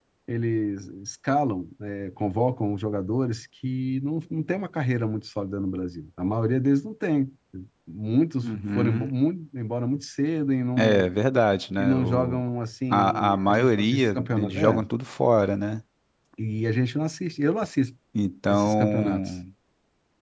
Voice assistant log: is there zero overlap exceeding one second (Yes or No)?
No